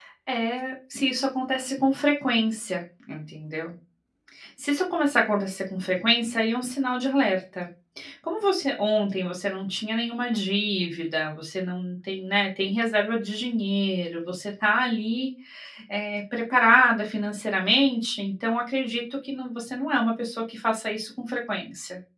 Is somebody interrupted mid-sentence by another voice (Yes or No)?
No